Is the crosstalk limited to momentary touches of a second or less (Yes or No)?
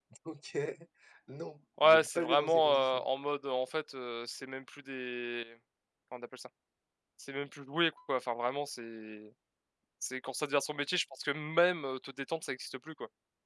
No